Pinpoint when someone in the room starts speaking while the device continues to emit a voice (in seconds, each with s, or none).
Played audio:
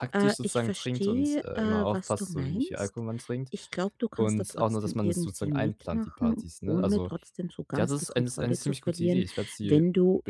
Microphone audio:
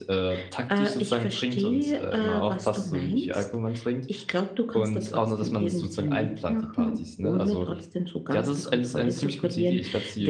none